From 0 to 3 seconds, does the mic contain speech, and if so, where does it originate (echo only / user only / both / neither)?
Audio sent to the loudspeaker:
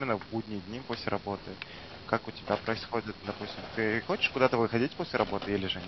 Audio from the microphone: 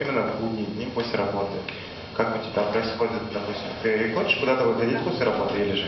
echo only